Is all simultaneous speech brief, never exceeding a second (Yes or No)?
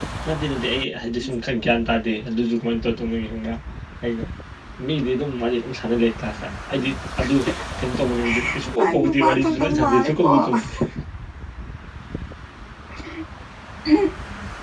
No